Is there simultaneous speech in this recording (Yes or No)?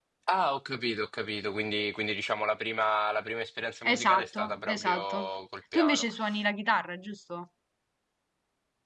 Yes